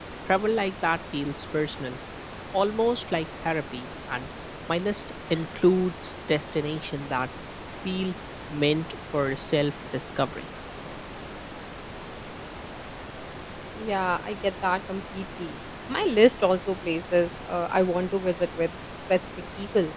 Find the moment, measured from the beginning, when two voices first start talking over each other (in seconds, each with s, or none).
none